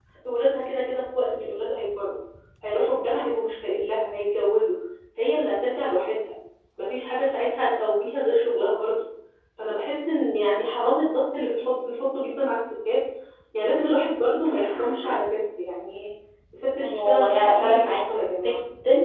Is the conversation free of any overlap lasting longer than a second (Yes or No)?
No